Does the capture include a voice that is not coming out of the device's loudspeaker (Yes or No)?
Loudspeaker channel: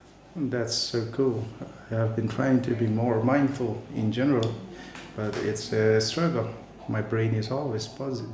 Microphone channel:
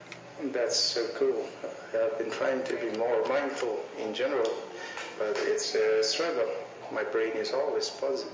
No